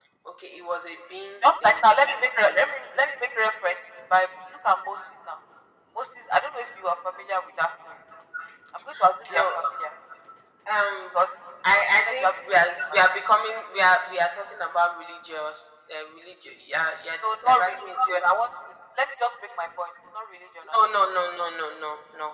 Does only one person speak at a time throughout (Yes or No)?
No